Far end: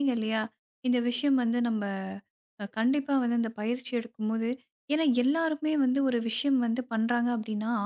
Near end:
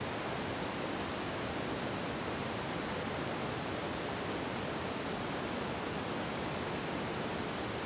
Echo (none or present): none